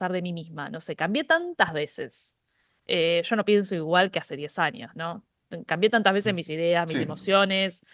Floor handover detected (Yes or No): No